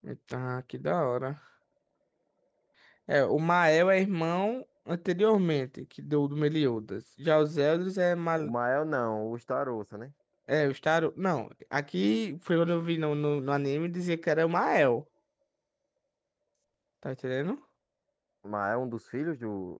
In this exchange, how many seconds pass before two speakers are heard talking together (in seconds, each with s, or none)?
none